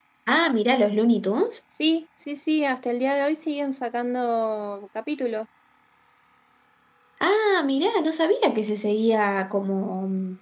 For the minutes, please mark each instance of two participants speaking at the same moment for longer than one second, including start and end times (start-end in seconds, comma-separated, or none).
none